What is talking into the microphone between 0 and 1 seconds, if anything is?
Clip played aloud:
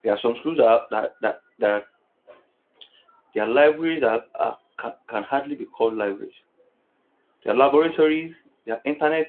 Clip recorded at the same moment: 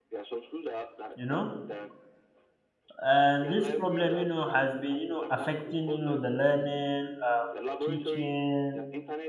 echo only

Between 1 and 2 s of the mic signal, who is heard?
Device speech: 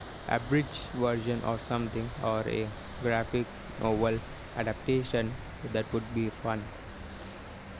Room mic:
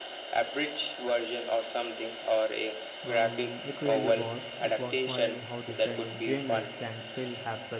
echo only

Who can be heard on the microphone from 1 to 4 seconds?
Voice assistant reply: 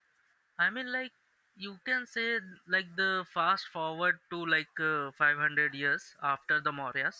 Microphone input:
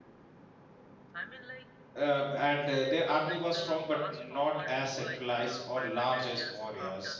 both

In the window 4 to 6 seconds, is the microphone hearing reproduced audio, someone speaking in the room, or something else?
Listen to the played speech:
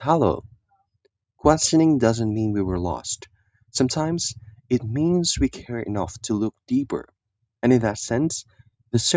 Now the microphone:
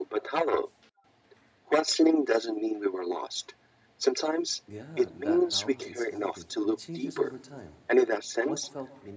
both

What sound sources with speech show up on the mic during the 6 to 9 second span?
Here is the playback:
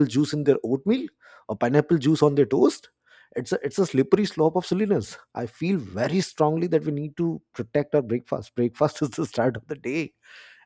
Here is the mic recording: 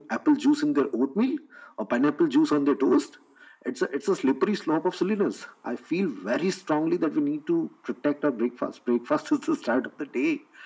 echo only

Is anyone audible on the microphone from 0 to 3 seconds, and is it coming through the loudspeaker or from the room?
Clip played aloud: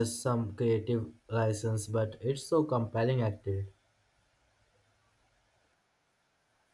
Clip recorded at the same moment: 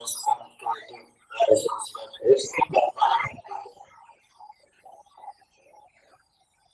echo only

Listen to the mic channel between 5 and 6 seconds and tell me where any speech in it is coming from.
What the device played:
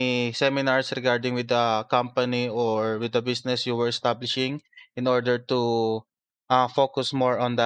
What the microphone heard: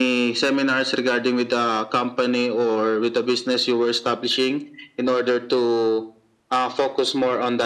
echo only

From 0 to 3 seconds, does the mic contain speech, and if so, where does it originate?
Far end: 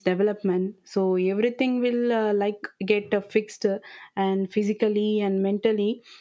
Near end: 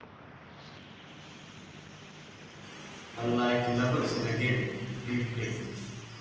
neither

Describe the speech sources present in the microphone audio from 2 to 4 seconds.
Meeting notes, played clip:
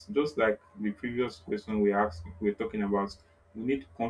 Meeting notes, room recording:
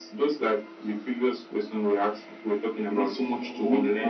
both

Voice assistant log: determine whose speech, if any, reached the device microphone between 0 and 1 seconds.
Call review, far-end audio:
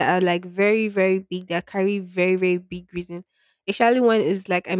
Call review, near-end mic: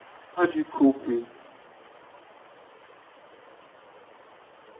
user only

